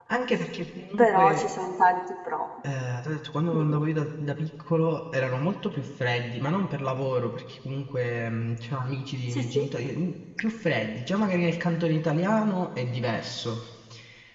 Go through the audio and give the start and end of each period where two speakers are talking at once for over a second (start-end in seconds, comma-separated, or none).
none